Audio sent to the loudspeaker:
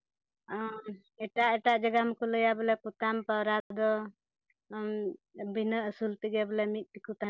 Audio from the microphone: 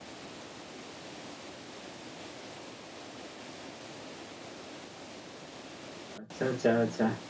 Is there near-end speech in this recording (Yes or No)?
Yes